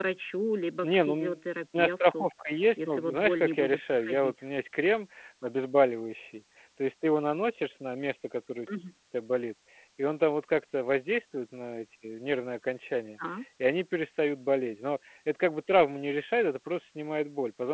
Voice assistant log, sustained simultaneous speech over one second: present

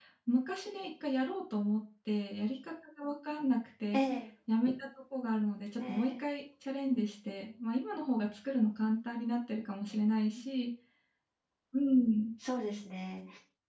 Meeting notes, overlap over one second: none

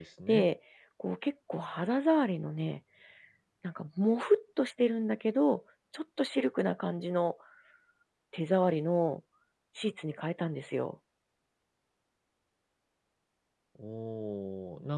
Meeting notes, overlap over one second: none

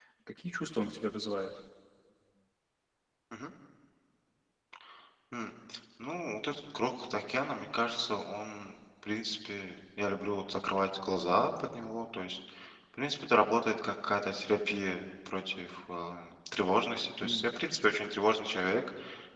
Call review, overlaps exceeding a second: none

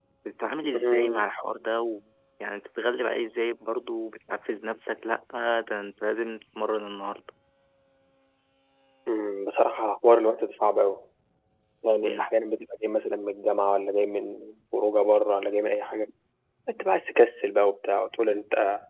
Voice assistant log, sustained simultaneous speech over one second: none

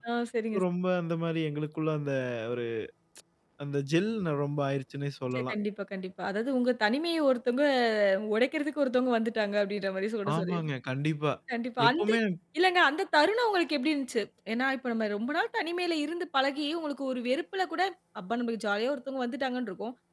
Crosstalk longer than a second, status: none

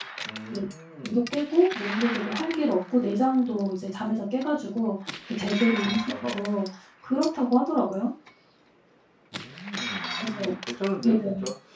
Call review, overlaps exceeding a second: none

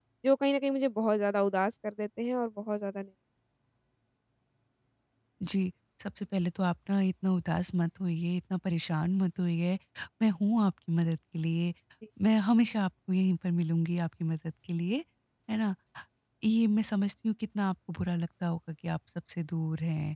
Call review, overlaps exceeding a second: none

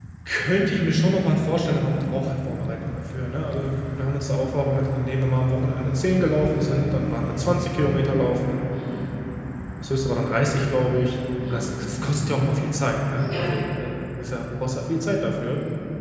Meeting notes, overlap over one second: none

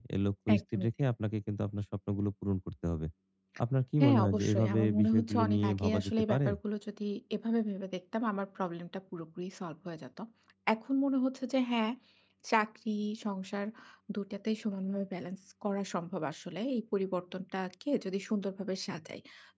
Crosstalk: present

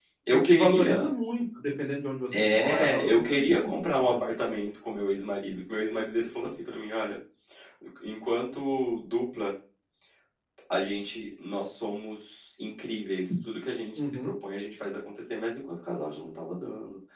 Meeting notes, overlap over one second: present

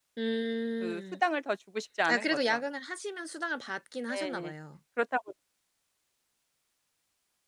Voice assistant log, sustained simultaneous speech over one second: none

